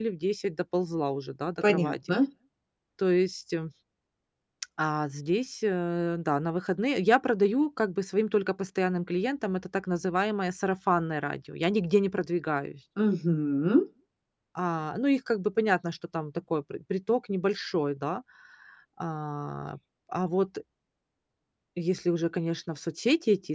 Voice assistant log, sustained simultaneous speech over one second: none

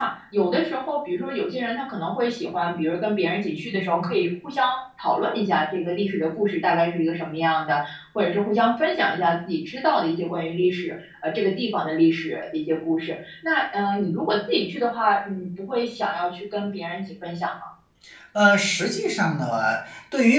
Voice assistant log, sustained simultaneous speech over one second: none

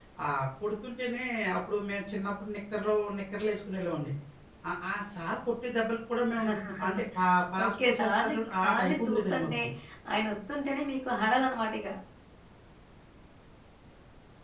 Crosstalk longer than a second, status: present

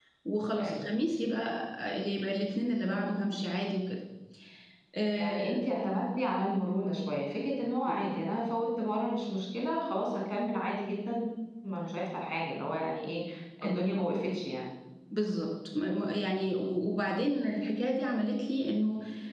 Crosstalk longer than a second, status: none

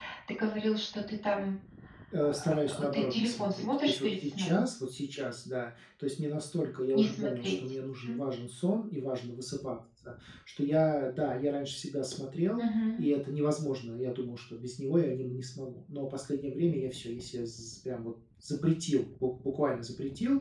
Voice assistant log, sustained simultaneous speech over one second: present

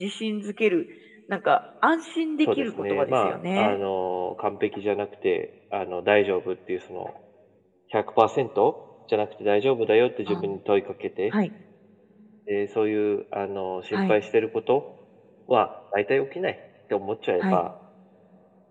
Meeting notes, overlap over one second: present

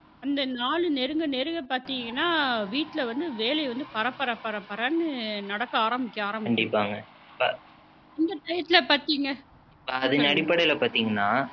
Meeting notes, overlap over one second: none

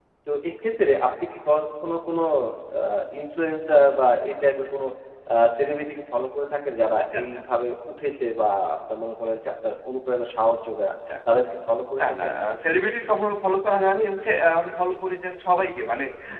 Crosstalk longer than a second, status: none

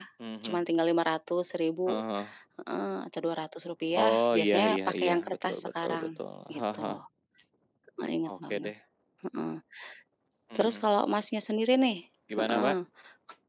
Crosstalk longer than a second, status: present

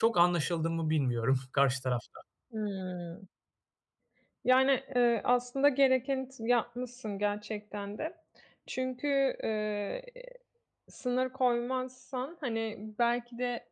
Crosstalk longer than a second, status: none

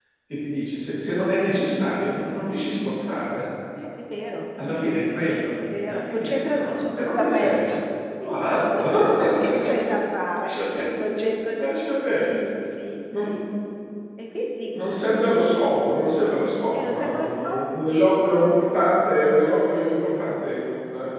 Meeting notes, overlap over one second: present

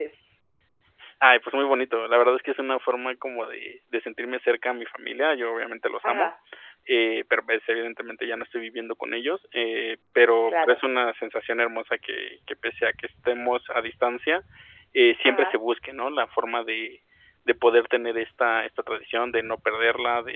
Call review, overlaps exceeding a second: none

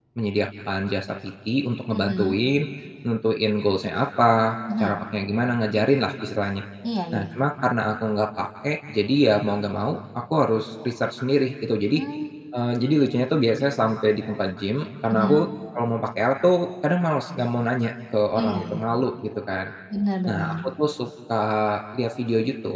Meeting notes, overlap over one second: none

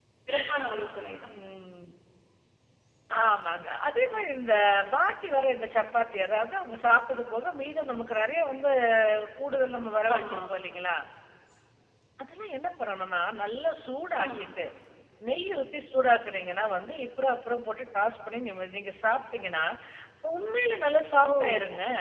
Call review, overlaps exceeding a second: none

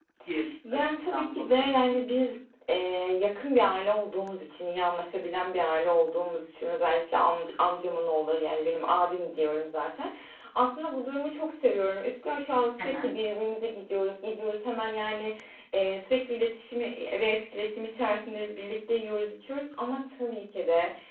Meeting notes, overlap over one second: present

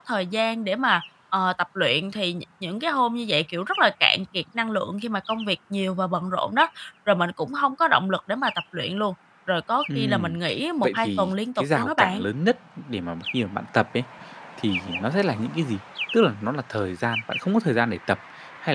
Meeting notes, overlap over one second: present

